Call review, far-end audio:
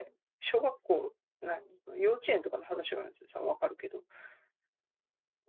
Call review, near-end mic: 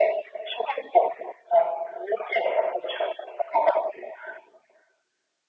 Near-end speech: none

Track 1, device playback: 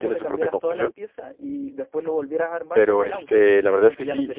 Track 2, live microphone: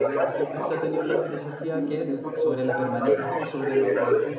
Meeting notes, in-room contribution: present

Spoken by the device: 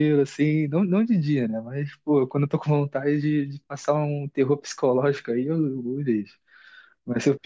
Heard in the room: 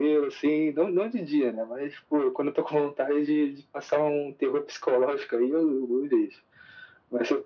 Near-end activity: none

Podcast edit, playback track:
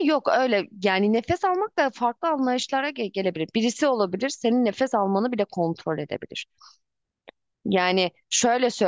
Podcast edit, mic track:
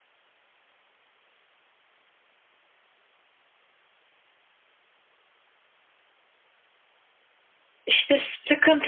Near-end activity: present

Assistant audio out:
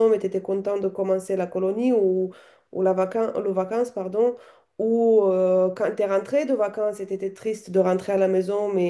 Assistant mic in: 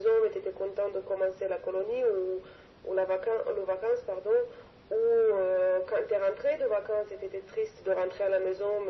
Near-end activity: none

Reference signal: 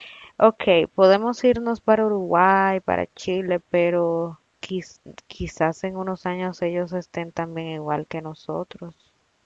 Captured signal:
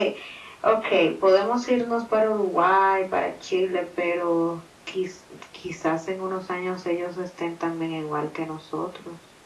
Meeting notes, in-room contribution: none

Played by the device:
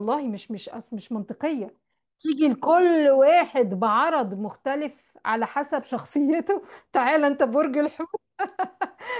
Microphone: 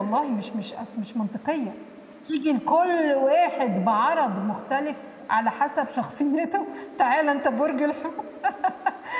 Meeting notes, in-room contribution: none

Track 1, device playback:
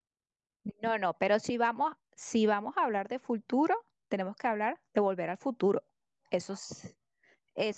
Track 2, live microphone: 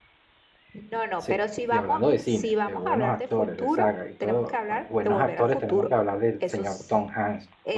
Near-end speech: present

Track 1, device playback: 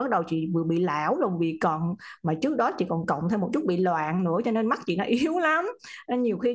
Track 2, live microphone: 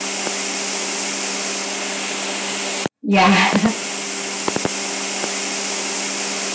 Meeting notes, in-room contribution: present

